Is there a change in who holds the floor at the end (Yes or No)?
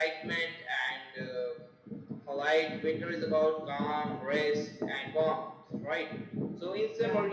No